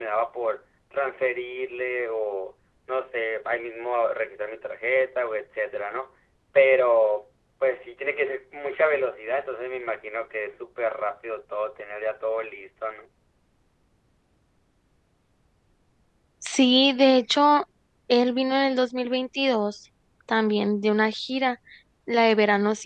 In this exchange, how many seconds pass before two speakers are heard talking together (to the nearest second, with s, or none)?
none